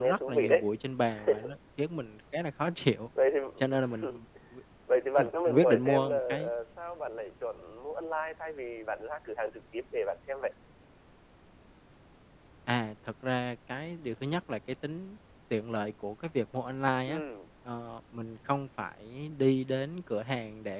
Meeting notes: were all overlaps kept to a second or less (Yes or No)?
No